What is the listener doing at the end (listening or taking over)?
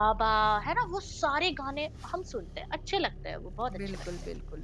taking over